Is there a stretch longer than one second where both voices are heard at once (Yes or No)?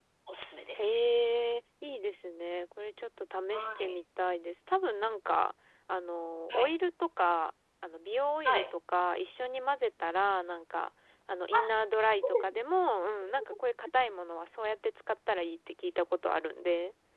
No